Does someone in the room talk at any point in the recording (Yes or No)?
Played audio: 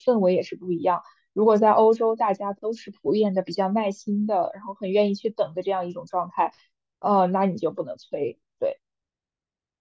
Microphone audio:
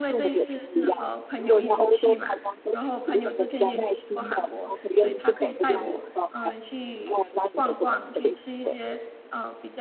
Yes